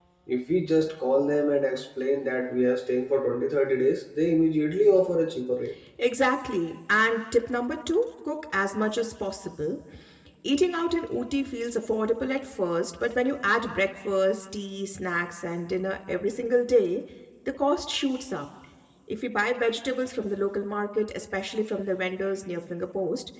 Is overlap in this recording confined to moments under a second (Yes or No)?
Yes